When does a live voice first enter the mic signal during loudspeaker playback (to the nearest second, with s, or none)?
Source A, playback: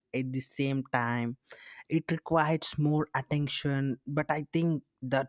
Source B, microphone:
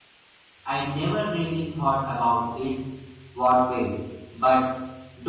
1 s